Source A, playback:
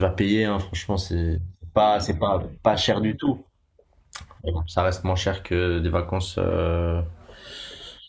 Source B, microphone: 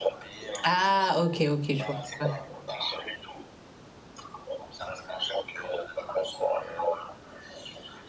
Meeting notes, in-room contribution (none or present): present